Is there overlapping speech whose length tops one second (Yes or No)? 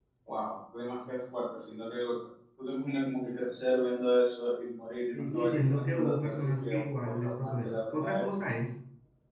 Yes